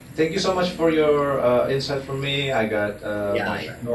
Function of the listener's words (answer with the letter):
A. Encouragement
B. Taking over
B